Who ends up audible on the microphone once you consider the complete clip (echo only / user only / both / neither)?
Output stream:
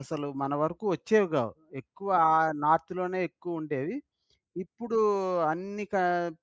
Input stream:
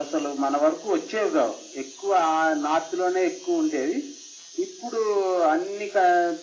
echo only